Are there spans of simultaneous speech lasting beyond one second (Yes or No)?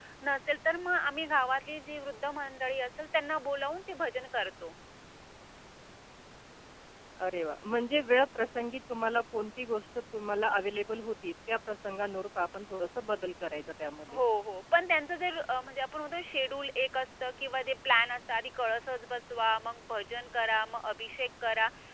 No